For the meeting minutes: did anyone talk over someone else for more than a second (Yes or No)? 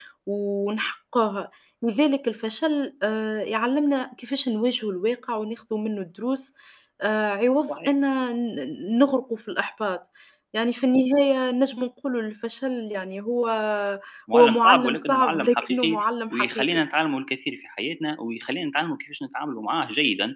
Yes